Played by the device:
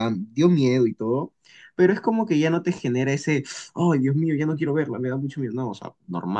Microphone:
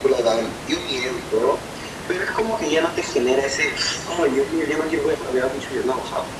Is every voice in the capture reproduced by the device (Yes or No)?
Yes